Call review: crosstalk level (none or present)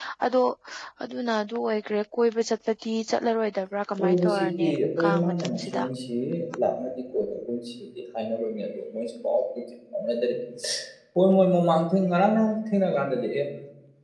present